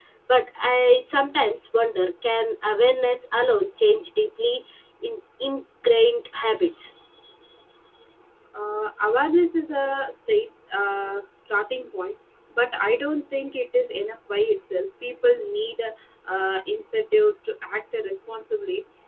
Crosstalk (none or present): none